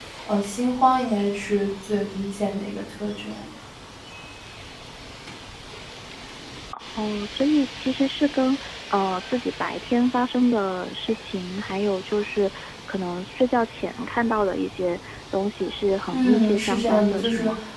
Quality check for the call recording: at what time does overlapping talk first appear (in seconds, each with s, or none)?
16.1 s